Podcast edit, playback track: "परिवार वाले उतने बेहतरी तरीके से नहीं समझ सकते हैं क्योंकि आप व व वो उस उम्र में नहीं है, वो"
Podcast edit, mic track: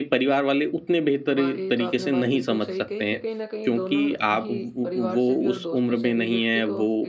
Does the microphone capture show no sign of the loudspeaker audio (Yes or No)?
No